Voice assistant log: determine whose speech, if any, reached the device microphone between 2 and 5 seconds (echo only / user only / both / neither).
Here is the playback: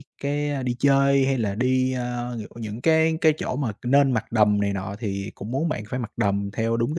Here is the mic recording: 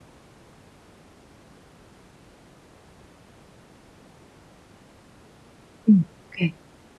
neither